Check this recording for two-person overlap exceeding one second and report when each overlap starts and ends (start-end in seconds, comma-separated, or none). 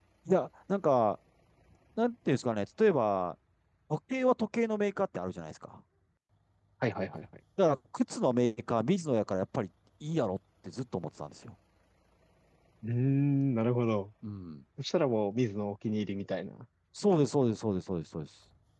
none